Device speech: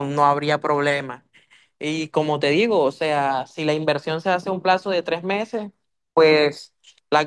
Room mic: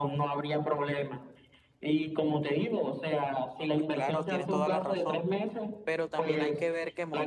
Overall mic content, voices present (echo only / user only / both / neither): both